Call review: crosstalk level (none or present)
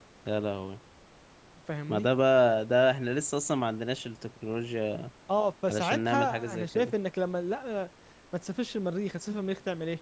present